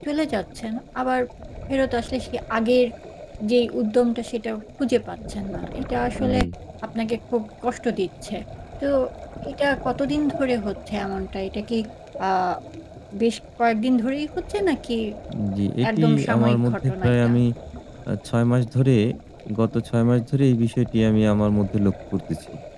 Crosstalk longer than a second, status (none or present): present